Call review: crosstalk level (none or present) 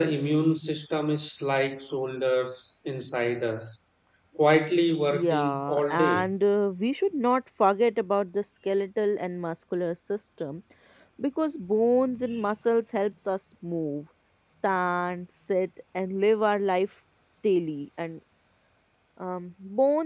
present